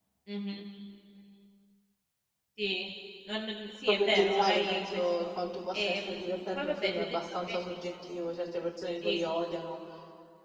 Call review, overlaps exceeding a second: present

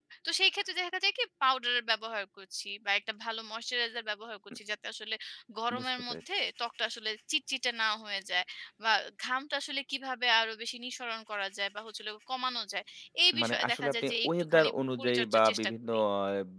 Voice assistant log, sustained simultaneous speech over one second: present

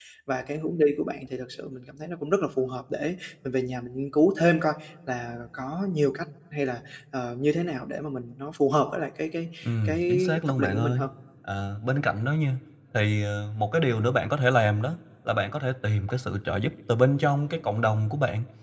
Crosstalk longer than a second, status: present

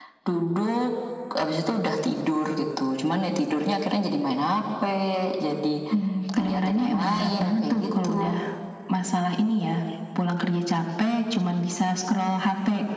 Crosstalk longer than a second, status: present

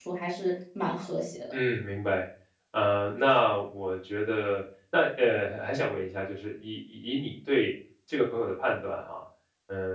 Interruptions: none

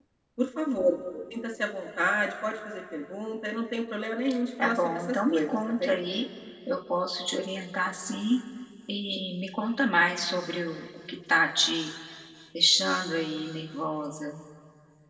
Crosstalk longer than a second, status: present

